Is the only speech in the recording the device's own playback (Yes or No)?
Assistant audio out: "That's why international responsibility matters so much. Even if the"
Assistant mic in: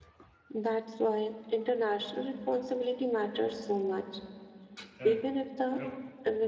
No